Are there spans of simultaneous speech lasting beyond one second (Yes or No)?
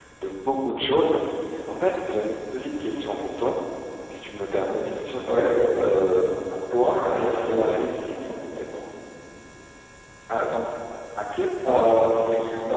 No